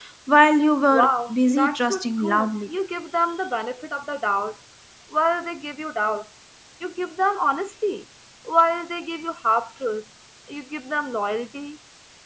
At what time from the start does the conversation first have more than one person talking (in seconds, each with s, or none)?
0.9 s